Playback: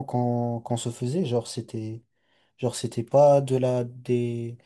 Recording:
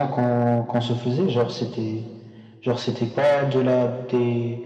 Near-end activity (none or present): none